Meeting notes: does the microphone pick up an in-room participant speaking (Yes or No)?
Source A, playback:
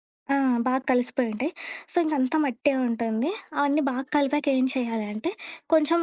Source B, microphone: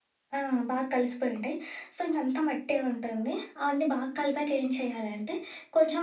No